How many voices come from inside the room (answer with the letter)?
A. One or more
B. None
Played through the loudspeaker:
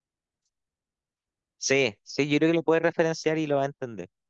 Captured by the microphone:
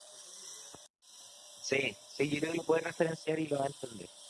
B